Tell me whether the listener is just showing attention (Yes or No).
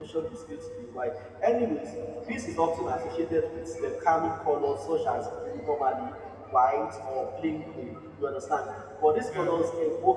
Yes